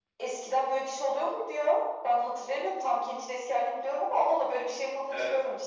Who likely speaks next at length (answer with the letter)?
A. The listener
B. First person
A